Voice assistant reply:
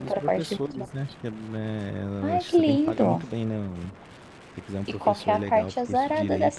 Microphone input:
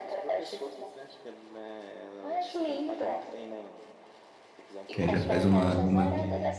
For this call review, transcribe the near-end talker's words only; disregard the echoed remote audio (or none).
Que aí já faz uma, uma-